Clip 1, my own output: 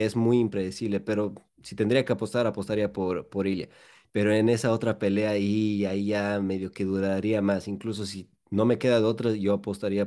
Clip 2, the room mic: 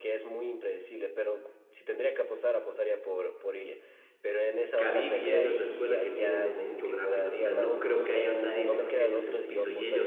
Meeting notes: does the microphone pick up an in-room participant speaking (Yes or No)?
Yes